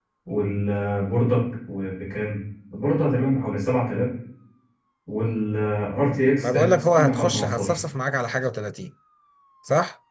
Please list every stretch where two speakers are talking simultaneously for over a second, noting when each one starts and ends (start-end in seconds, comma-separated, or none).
6.4-7.7